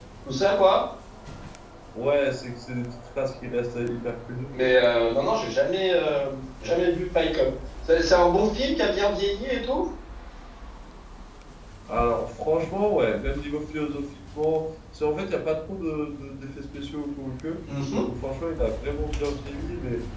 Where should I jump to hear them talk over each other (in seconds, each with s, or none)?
none